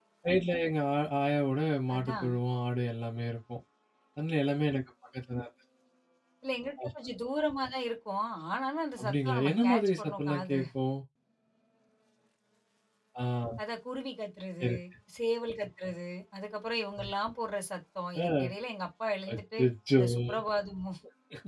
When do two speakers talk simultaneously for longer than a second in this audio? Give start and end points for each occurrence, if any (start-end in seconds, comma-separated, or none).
9.0-10.6